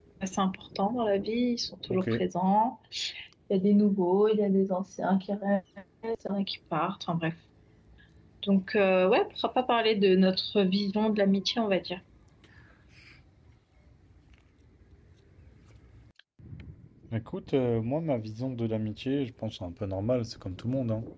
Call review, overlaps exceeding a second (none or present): none